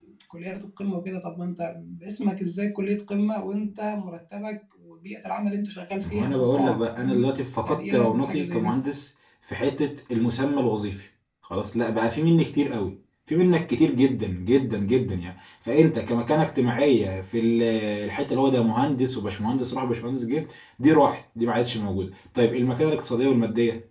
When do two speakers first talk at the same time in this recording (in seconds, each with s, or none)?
6.0 s